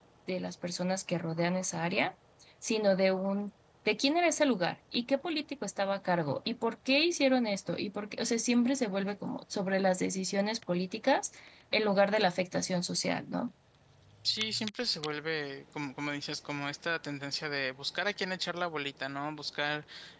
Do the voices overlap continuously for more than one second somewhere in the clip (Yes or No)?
No